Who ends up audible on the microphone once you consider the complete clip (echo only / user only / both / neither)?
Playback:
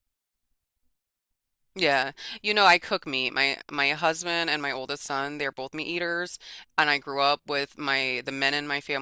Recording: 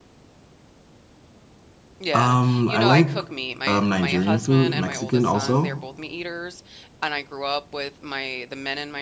both